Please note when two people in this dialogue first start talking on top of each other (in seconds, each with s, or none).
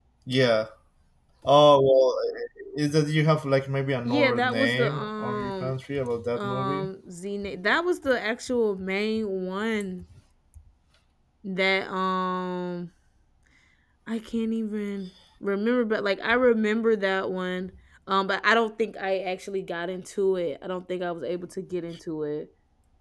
4.0 s